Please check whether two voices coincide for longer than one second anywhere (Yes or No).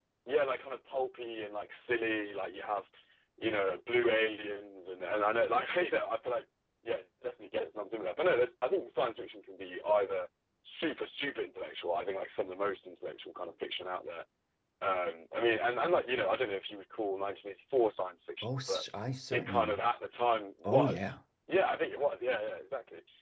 No